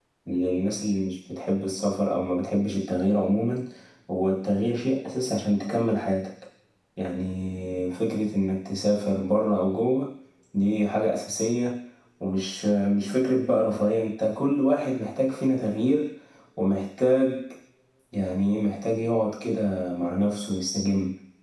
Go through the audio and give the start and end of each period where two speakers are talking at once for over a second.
none

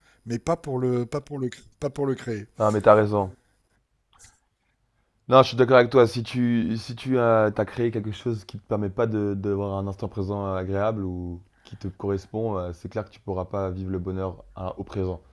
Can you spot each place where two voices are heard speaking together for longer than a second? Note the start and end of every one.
none

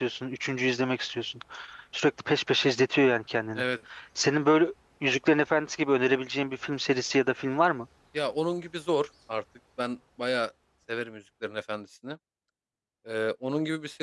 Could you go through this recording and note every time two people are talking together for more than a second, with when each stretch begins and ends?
none

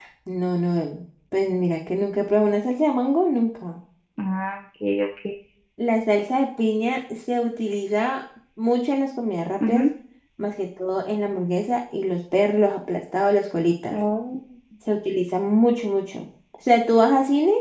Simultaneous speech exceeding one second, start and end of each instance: none

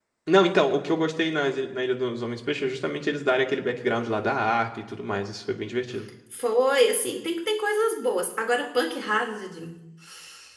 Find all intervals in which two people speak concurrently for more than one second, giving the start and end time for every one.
none

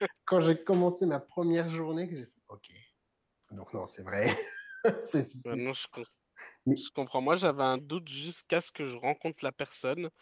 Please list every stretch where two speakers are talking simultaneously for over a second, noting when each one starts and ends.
none

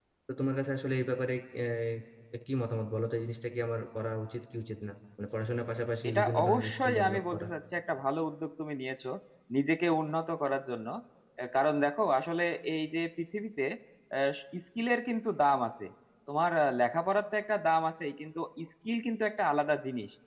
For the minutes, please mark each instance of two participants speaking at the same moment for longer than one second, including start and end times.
6.1-7.5

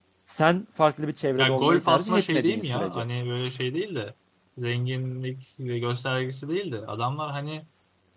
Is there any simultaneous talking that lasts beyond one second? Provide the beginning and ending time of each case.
1.4-3.0

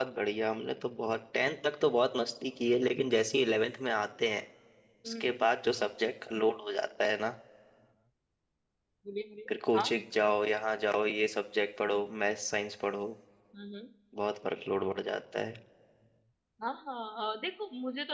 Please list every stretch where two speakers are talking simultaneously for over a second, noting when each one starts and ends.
none

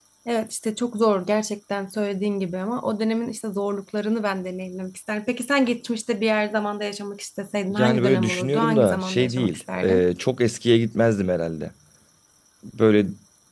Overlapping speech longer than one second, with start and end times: 7.7-10.0

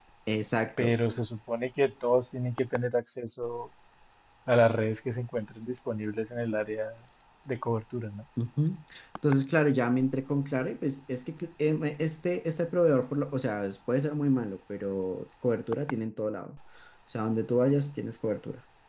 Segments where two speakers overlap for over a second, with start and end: none

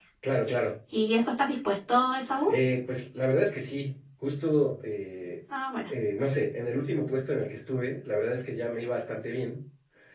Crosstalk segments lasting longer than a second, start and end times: none

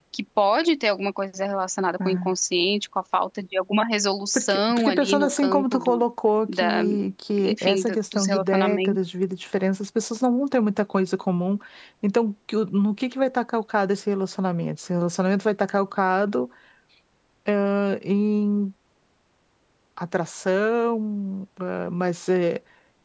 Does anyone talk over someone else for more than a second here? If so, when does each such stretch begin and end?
4.3-6.0, 7.4-9.0

